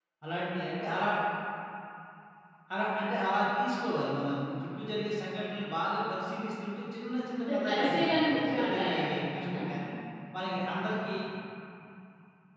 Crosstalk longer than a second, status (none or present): present